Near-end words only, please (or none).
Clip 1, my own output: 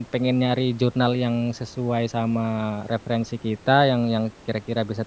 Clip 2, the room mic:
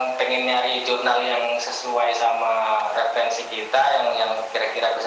none